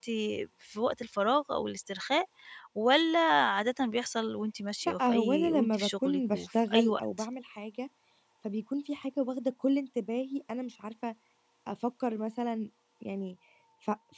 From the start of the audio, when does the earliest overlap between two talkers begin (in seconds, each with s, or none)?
5.0 s